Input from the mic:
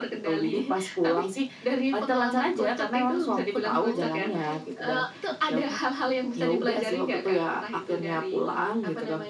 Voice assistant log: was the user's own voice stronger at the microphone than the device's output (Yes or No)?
No